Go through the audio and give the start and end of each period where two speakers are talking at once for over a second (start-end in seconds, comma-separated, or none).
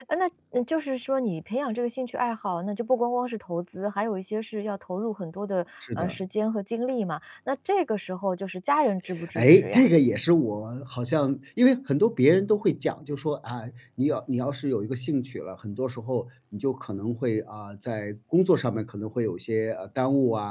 none